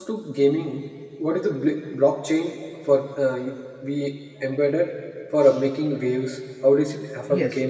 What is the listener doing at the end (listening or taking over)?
taking over